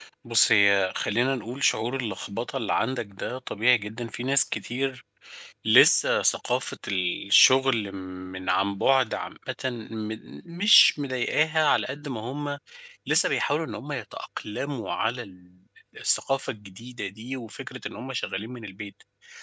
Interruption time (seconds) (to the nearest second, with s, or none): none